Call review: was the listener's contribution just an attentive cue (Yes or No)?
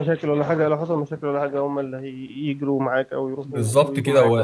No